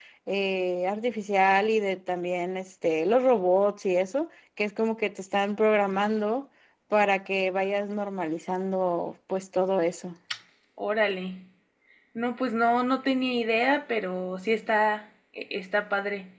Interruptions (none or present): none